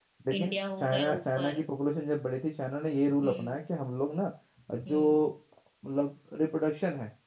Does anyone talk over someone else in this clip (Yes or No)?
Yes